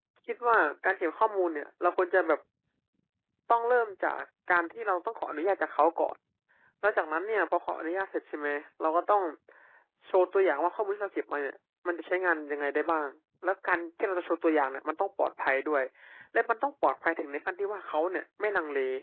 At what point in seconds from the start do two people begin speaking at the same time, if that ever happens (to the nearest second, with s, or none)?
none